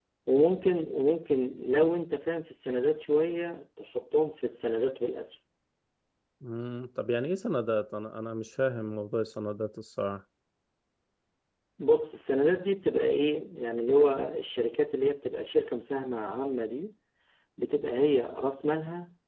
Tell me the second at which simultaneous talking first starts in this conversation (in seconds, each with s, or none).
none